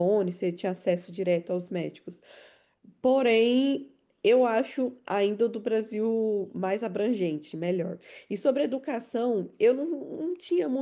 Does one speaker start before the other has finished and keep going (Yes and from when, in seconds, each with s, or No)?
No